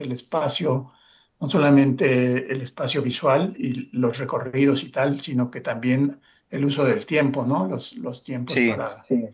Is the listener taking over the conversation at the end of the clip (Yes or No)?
No